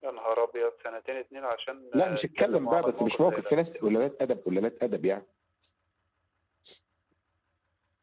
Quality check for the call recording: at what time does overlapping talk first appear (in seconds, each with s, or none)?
1.9 s